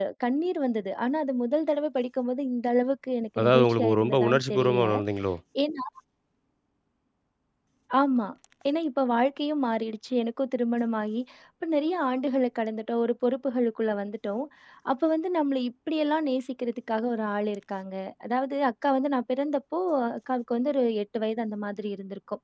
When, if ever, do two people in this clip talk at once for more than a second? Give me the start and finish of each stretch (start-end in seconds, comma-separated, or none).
3.4-4.8